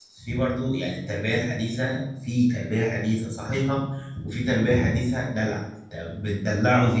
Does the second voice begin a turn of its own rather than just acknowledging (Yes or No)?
No